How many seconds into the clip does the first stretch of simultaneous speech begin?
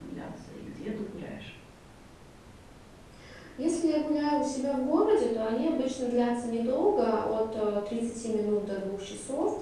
none

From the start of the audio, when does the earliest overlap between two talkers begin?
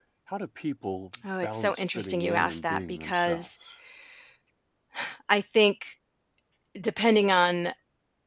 1.2 s

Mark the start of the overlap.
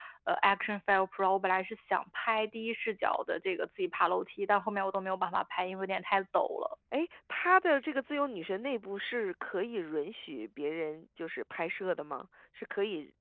none

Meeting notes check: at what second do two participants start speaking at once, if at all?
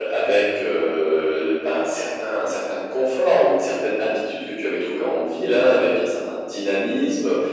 none

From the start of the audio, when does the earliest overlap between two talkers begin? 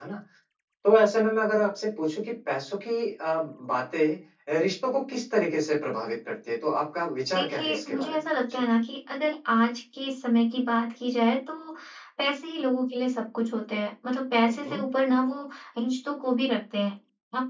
7.4 s

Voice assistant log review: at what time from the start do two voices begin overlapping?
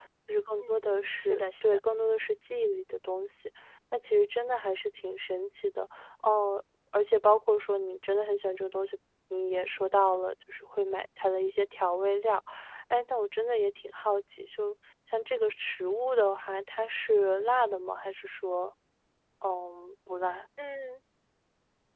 0.6 s

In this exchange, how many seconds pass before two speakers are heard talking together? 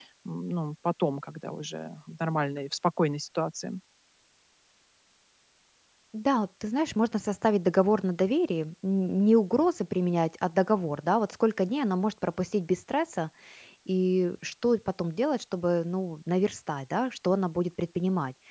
none

